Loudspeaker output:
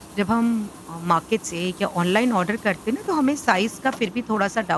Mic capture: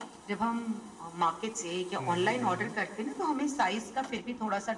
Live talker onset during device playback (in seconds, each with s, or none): 2.0 s